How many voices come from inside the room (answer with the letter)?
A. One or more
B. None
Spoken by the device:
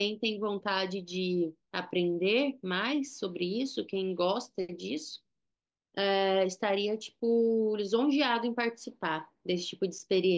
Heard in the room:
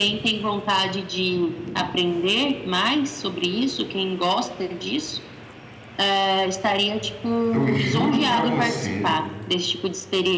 A